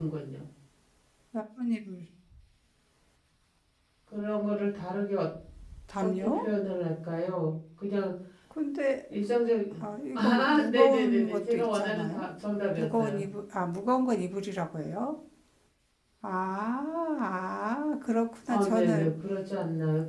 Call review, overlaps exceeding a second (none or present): present